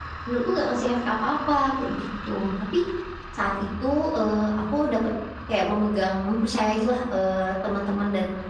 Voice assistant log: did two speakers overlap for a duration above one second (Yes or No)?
No